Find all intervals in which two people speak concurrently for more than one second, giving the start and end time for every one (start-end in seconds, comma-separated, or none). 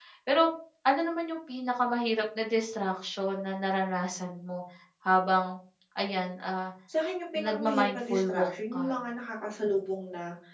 7.4-8.8